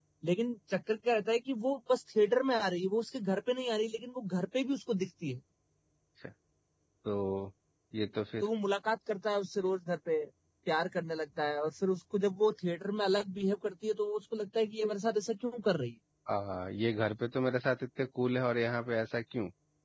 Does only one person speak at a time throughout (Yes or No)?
Yes